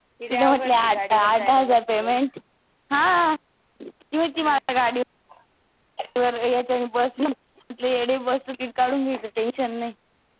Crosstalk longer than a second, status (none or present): present